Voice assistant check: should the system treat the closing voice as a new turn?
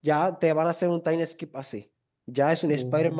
No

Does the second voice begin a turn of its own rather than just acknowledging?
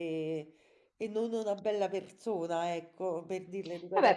Yes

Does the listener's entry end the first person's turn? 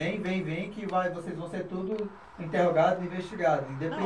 Yes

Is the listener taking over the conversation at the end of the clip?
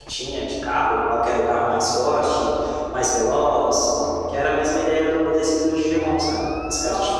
Yes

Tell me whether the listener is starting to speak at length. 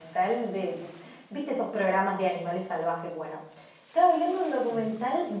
No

